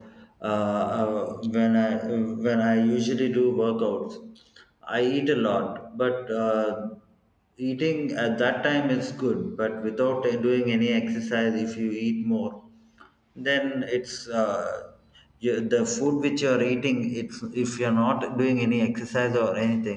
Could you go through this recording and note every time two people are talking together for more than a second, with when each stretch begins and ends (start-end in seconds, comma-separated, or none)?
none